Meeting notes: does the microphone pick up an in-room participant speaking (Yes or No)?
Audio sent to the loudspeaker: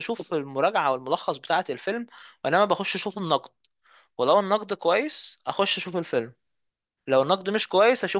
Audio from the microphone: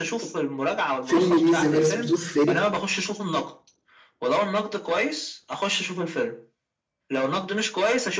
Yes